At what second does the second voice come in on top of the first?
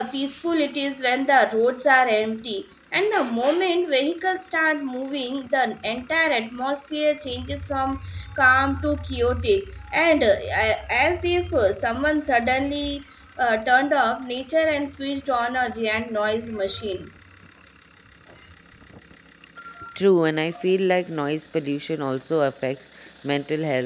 none

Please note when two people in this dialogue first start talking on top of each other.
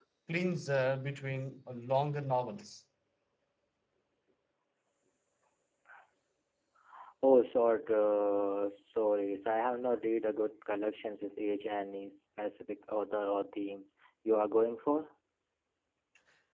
none

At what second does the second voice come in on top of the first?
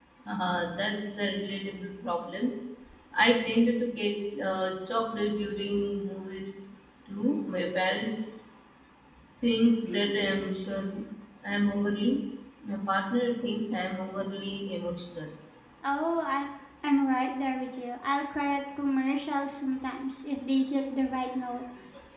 none

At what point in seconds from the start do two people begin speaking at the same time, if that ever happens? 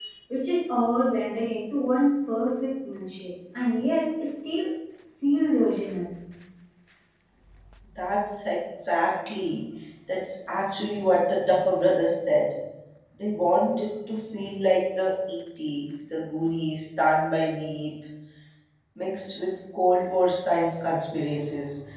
none

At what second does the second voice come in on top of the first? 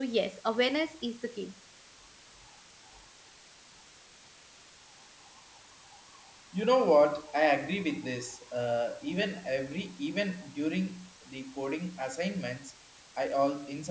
none

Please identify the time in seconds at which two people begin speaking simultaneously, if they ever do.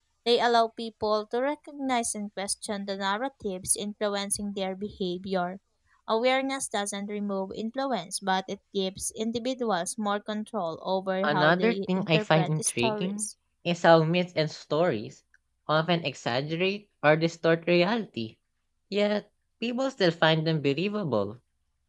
11.2 s

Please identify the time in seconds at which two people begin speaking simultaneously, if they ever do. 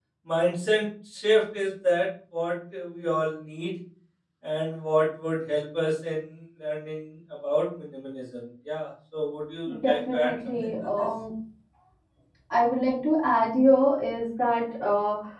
9.7 s

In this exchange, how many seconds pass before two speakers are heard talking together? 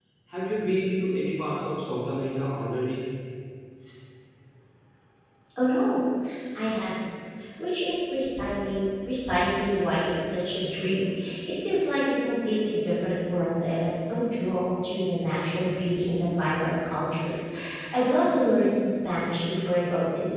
none

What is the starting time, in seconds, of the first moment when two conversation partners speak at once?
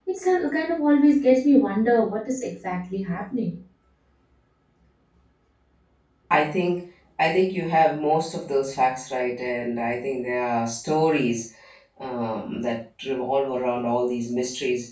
none

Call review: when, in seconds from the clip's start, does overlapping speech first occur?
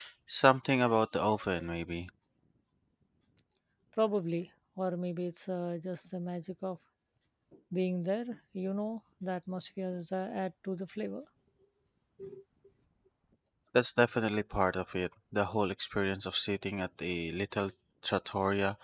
none

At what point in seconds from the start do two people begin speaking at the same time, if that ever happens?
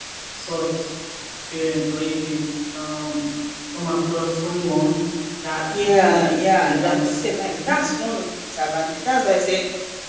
5.7 s

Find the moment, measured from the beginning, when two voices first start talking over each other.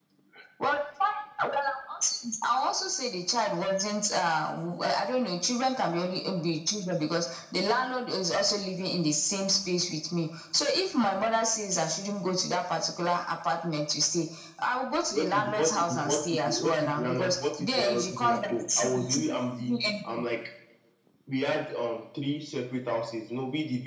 15.1 s

